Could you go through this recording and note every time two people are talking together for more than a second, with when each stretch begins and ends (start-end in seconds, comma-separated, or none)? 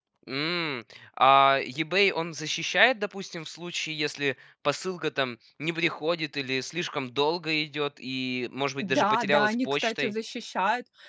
8.8-10.1